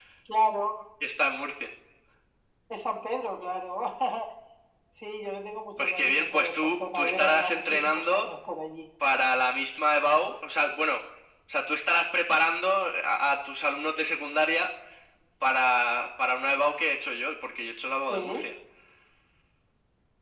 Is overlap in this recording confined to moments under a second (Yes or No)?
No